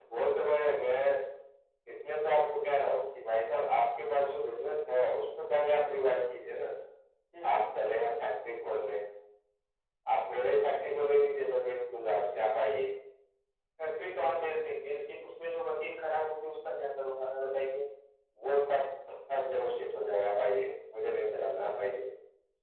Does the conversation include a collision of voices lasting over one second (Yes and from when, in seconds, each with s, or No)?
No